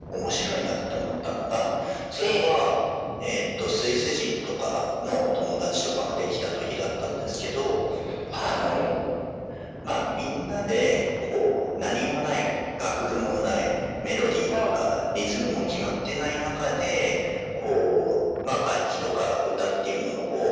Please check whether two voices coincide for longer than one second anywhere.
No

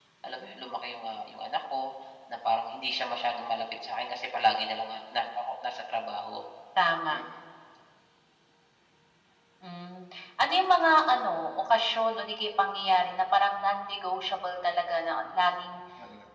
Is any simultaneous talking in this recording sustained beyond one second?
No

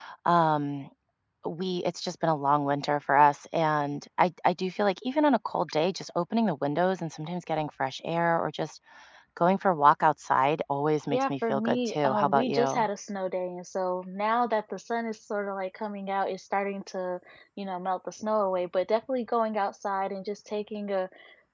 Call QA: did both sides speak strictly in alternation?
No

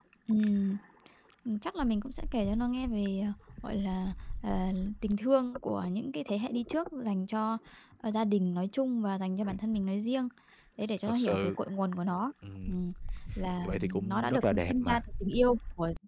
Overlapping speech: Yes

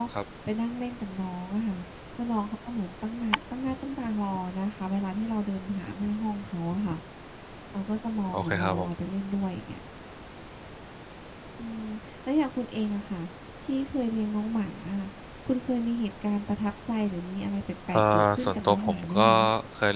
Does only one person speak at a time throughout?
No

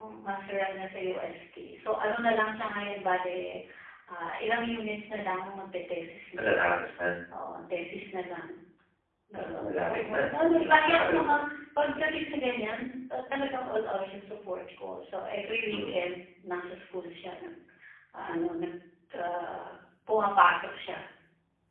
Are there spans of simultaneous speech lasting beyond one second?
Yes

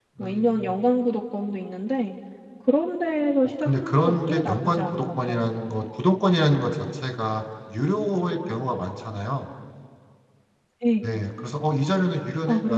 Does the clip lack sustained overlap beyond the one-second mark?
No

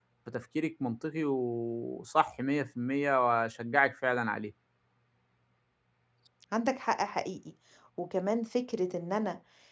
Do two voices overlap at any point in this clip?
No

